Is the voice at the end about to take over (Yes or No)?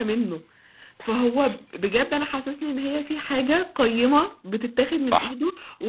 No